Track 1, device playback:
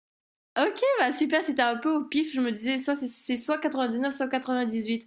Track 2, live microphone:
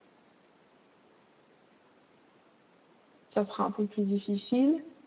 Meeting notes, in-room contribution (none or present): present